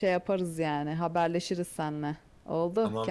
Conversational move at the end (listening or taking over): taking over